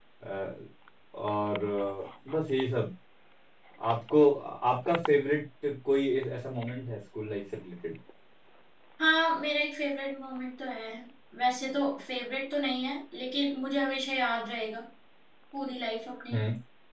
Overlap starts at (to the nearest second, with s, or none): none